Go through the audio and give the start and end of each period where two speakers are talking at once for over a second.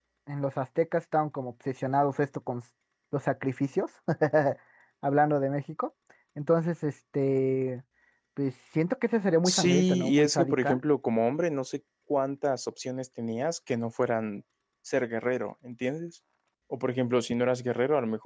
9.4-10.8

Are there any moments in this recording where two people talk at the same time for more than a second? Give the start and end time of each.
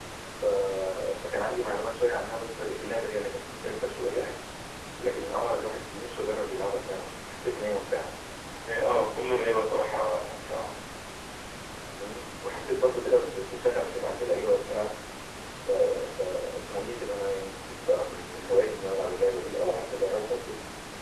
none

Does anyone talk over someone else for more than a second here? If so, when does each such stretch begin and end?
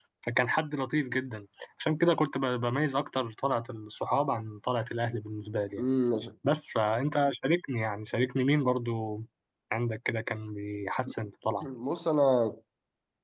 none

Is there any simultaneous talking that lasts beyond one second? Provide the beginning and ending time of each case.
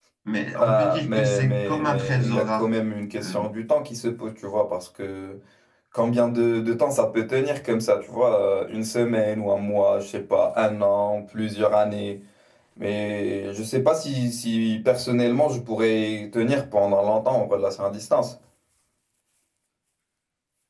0.6-2.6

